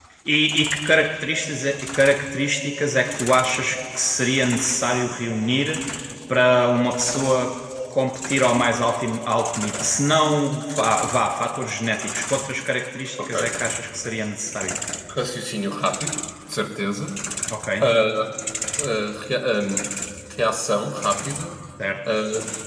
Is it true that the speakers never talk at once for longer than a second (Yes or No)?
Yes